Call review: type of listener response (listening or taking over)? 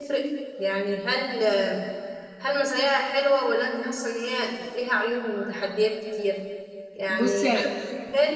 listening